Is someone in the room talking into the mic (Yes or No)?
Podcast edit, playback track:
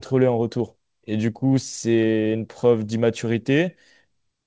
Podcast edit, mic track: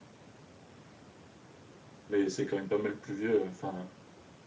Yes